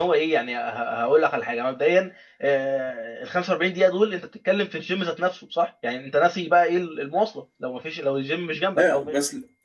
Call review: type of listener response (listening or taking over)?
taking over